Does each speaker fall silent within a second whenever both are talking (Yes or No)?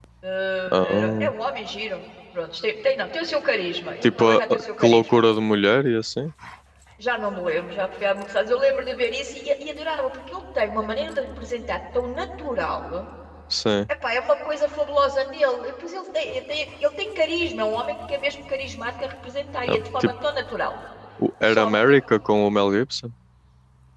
No